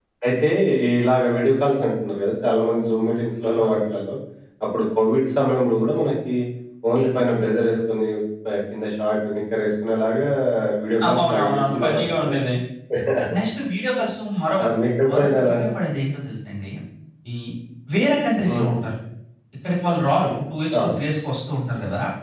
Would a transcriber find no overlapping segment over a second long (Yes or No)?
No